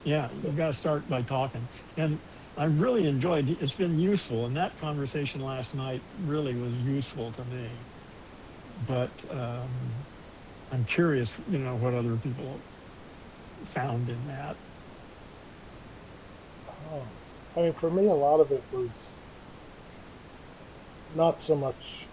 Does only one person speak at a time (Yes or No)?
Yes